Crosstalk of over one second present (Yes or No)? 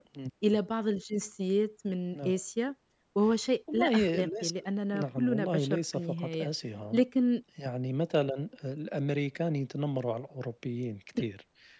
Yes